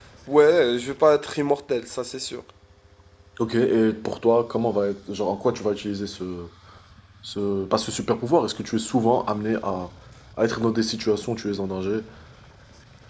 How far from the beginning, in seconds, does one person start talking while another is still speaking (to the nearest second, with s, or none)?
none